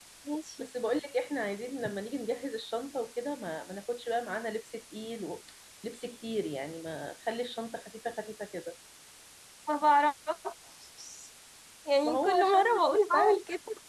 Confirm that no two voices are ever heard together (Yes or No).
No